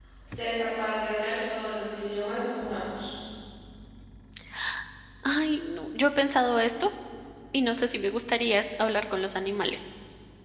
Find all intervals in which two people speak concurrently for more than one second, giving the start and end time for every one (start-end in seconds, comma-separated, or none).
none